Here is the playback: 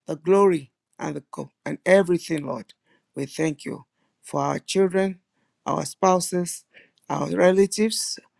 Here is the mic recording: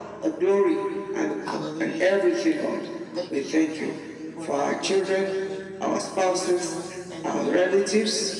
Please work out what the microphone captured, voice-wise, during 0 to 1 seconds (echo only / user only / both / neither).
echo only